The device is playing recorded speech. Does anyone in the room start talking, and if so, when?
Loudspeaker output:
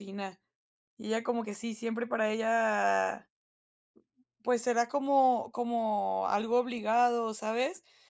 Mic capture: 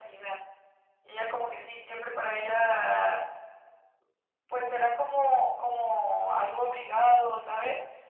none

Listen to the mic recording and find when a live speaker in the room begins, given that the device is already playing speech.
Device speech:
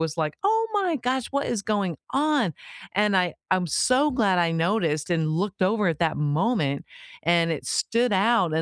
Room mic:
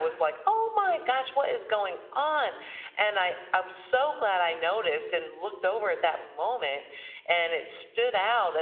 none

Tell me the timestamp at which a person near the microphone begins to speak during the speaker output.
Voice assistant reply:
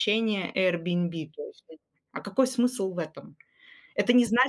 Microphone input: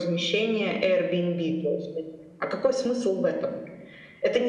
none

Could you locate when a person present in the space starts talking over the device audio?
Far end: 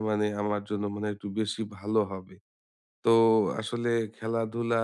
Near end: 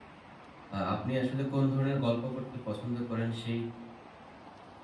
0.7 s

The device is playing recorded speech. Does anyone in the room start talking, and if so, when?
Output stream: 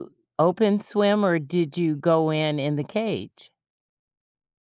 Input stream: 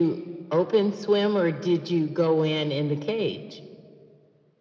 none

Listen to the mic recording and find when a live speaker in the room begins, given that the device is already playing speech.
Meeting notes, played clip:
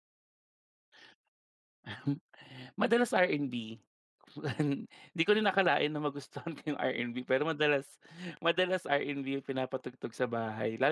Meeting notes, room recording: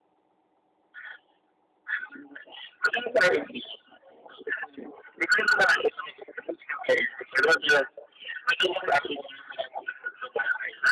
none

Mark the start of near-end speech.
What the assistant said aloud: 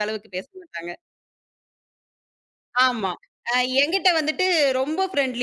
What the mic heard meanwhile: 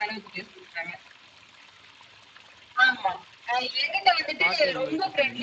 4.4 s

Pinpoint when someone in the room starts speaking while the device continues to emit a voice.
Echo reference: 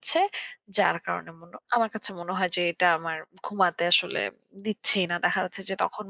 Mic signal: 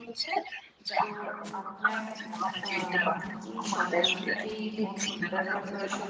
1.0 s

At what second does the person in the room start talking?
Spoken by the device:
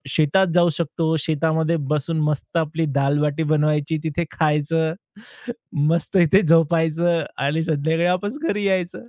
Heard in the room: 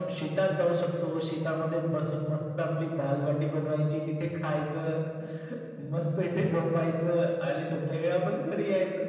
none

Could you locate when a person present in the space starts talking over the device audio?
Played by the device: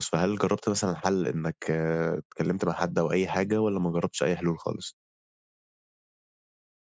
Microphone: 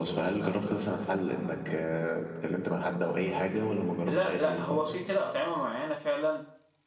4.1 s

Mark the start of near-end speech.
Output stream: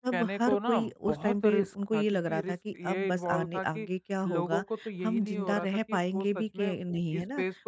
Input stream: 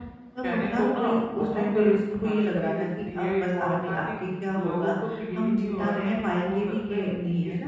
none

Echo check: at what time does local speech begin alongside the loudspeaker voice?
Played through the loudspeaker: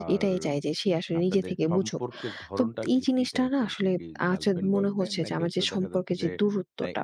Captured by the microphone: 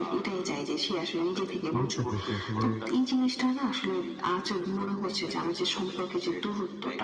1.8 s

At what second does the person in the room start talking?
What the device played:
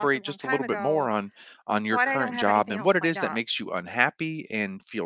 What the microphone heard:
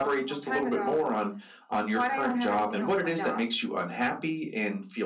none

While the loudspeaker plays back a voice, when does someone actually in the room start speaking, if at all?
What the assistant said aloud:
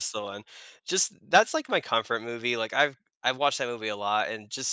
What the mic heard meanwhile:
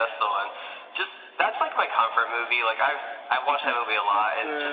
3.5 s

